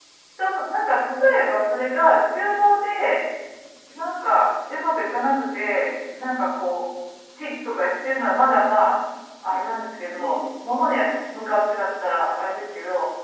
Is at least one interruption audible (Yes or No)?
Yes